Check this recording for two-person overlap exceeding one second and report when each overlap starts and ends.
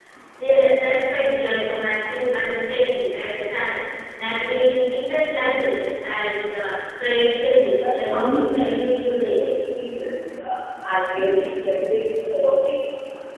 7.8-9.5

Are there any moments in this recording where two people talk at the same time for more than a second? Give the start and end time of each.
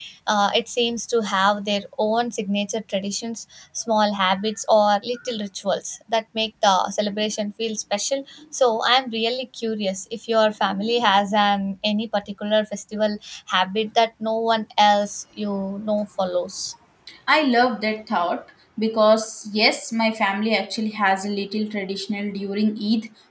none

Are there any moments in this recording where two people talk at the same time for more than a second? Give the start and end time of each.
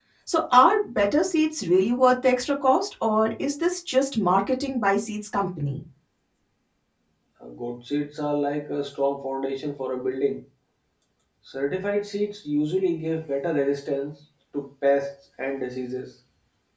none

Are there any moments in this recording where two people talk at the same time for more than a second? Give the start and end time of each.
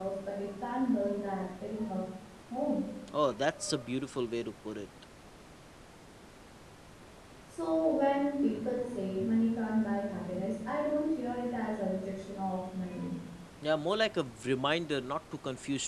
none

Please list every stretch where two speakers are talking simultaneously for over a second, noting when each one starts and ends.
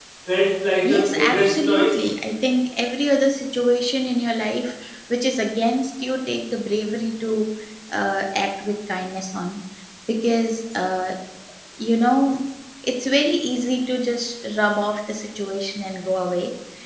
0.8-2.1

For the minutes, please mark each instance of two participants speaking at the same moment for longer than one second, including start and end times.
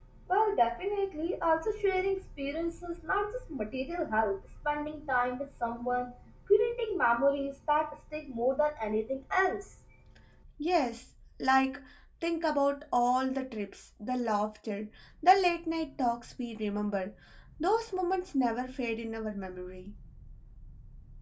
none

